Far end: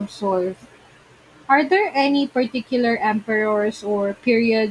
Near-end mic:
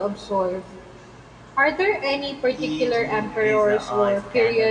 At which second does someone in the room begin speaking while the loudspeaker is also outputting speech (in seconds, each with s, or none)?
2.5 s